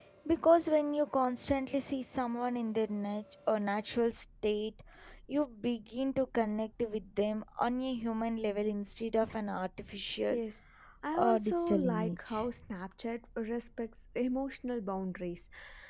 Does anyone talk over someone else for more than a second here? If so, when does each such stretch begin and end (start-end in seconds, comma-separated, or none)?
11.1-12.5